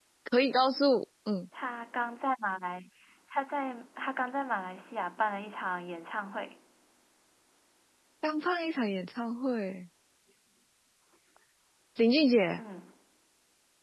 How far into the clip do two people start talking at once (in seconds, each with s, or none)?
none